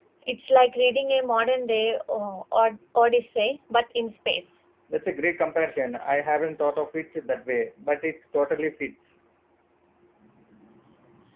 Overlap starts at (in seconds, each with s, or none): none